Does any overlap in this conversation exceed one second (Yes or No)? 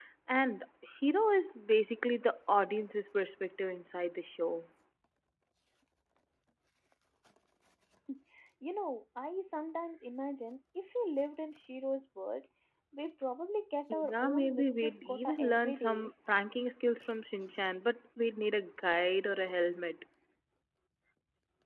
Yes